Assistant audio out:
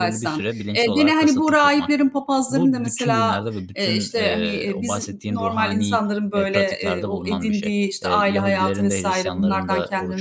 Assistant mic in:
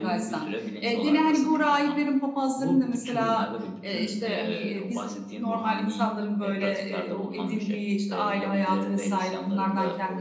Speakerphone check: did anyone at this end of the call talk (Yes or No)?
No